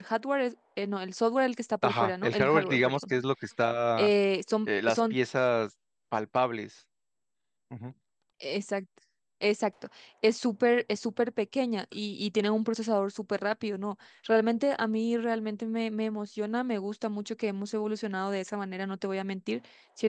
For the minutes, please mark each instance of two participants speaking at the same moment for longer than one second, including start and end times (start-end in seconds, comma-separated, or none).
1.8-3.1